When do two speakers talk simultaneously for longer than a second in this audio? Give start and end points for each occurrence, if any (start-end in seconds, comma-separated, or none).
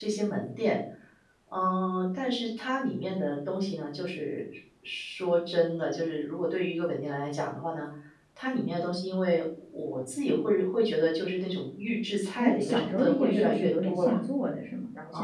12.4-14.1